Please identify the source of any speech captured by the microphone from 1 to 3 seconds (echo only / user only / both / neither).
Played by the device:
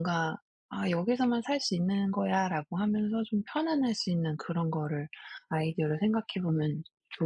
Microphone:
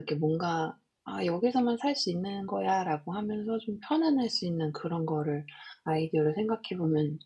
echo only